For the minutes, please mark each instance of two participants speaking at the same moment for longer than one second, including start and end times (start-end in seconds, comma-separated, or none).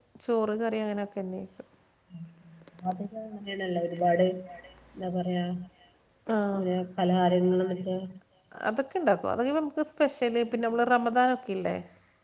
none